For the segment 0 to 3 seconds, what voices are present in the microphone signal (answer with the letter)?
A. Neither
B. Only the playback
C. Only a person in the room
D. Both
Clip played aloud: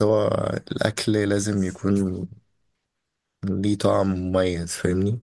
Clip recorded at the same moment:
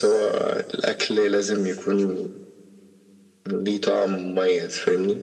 B